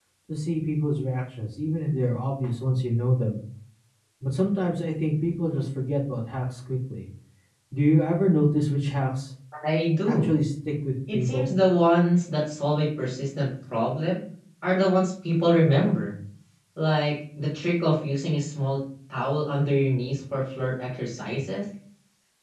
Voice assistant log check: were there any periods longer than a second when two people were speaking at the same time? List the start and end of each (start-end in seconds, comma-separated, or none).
none